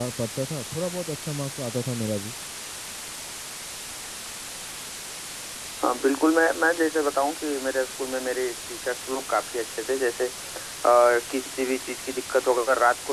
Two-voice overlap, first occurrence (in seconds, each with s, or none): none